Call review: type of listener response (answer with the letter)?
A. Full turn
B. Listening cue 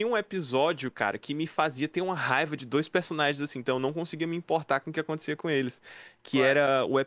B